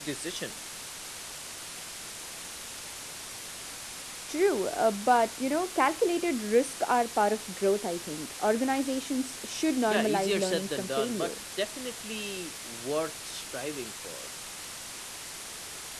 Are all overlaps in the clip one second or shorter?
No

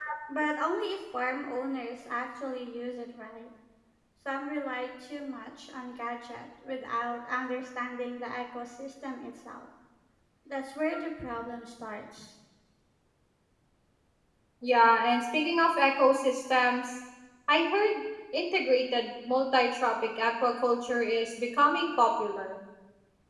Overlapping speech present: No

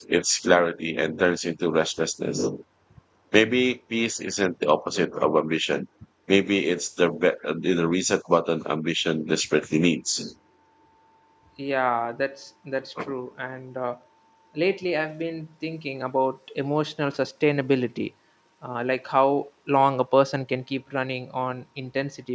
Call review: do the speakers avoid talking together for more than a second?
Yes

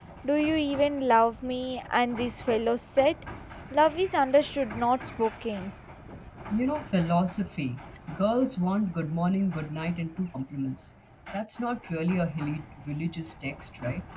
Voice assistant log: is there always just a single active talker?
Yes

